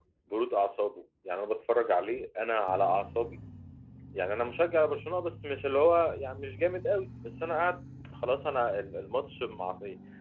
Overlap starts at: none

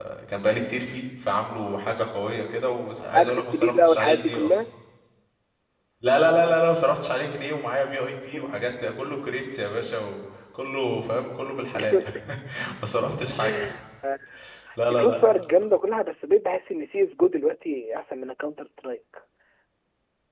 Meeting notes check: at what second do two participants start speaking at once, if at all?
3 s

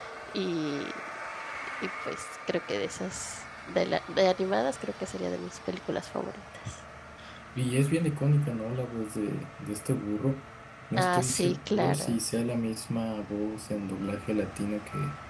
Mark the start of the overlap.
11 s

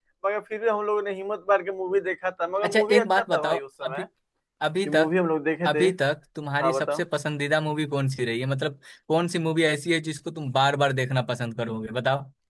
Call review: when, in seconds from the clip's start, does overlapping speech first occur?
3 s

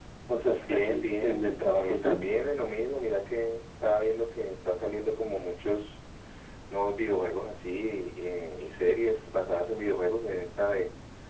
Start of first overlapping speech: 1 s

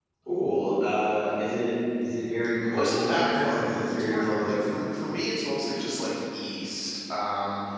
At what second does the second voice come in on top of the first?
3 s

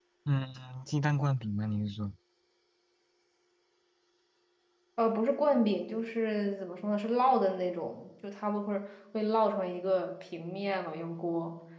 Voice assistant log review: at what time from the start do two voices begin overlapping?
none

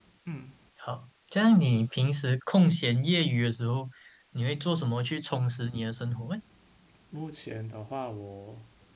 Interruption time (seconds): none

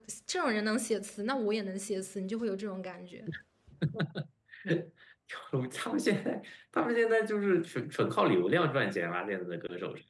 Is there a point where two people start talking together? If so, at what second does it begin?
none

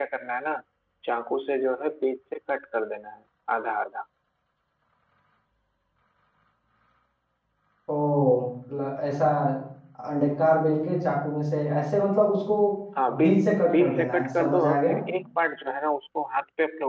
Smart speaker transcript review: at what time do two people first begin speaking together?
13 s

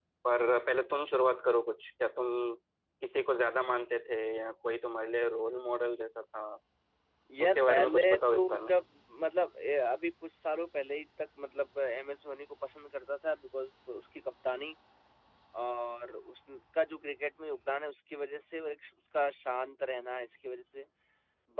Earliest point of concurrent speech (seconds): 7 s

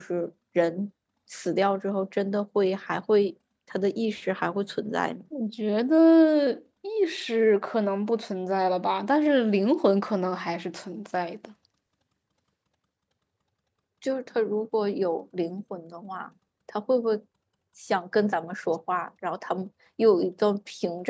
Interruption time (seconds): none

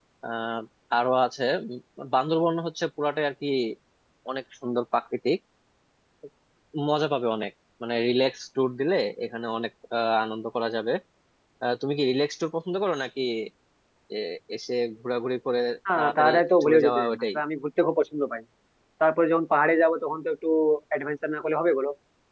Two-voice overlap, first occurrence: 16 s

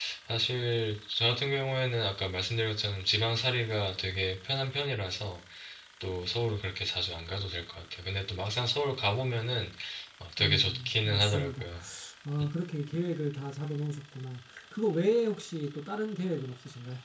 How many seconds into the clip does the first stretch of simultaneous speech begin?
10 s

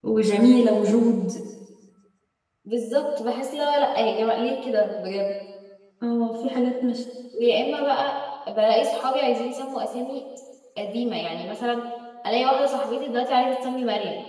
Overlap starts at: none

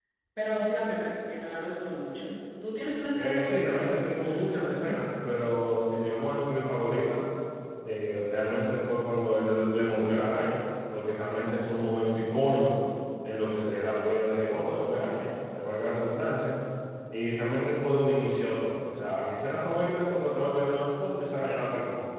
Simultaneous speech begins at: 3 s

